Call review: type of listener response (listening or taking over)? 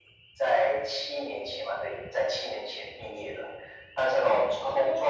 listening